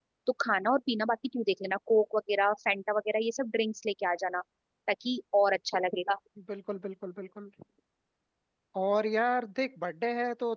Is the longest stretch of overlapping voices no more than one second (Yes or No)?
Yes